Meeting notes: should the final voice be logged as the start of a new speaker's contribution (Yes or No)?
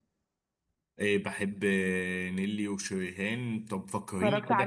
No